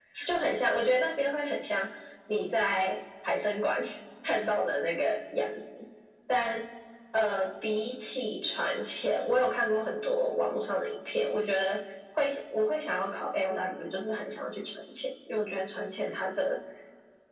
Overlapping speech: No

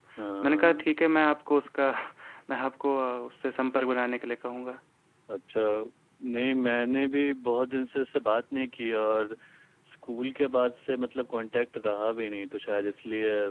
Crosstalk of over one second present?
No

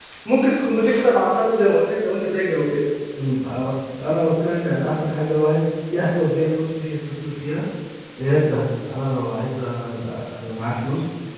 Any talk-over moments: No

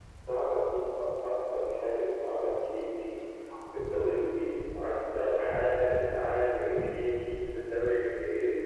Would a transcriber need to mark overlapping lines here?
No

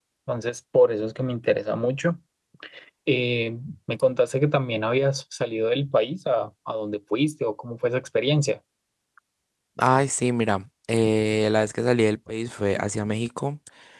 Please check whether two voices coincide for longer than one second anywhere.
No

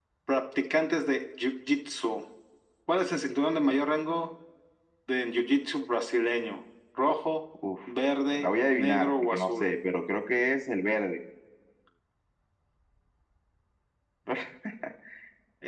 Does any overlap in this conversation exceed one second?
Yes, from 8.3 s

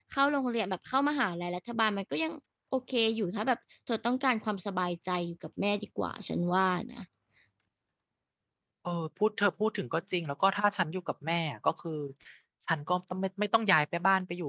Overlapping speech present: No

